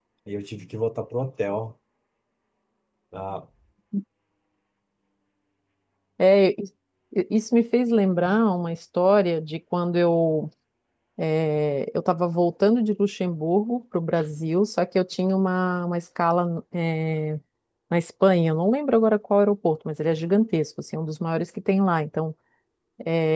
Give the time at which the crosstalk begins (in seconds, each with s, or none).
none